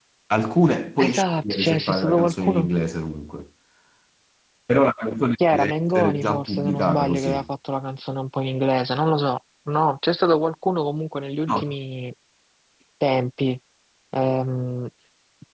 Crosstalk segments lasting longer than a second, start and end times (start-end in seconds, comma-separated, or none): 1.0-2.7, 5.5-7.5